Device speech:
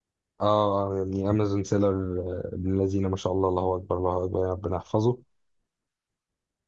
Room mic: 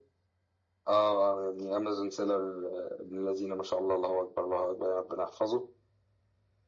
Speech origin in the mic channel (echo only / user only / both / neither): echo only